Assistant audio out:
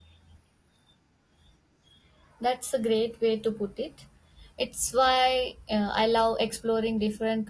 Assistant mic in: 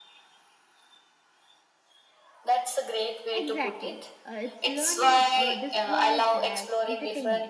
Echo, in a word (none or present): present